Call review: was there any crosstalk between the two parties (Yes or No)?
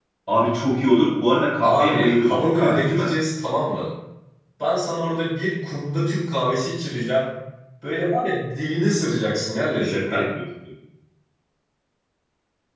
Yes